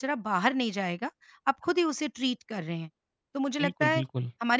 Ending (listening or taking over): listening